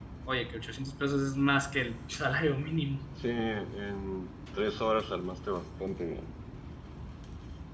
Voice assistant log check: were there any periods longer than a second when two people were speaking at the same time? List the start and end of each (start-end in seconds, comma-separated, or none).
none